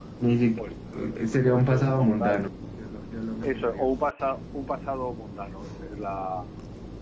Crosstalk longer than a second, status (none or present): present